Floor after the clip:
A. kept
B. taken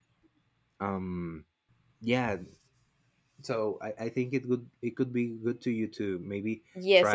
B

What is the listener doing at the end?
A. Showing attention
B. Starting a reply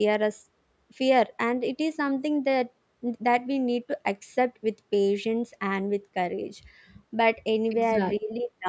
A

